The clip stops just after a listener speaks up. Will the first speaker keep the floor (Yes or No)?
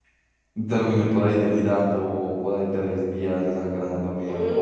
No